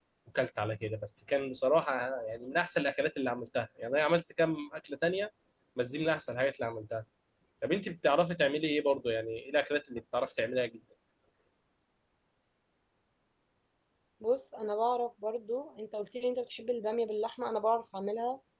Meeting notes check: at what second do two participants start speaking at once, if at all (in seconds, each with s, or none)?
none